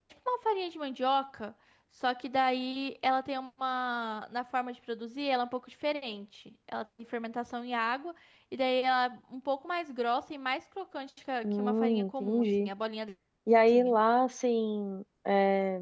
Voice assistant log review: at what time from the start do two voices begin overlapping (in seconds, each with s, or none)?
11.4 s